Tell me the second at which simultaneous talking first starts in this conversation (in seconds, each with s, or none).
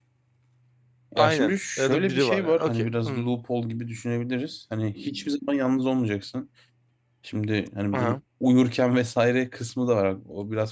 1.2 s